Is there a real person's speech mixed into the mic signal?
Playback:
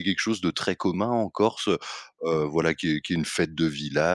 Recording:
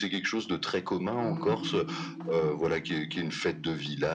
Yes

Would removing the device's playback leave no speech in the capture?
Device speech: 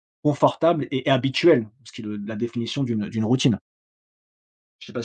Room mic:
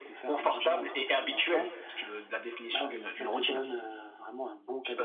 No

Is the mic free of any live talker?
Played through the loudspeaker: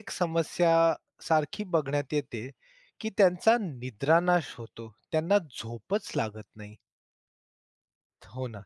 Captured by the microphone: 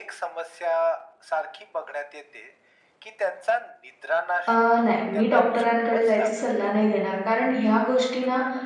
No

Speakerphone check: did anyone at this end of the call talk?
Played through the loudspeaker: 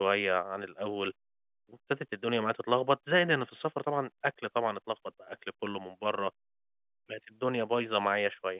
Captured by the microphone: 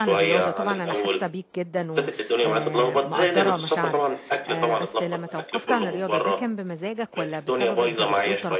Yes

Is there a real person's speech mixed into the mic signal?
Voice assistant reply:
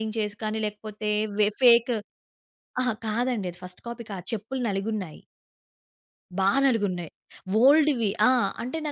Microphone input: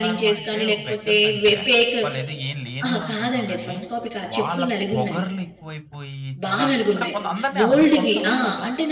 Yes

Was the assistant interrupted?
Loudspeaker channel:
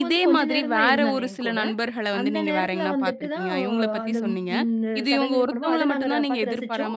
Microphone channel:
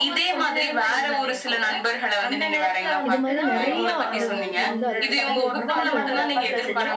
Yes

